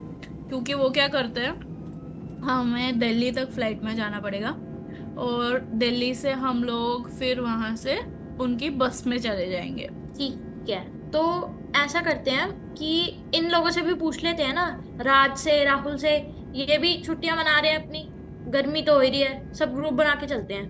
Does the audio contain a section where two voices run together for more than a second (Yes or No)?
No